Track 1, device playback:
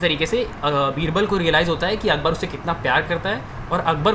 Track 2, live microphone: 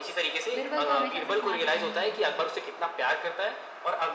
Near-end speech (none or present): present